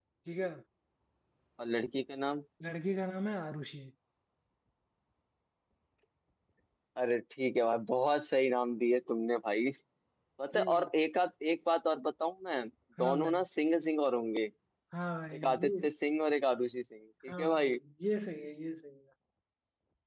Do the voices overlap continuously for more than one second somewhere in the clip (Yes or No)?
No